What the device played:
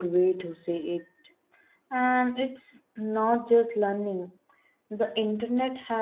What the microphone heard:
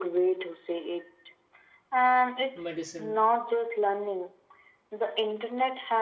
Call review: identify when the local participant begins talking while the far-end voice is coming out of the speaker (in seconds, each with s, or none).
2.5 s